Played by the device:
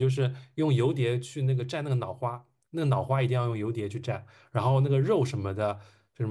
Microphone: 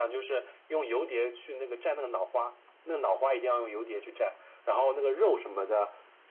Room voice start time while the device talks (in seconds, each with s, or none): none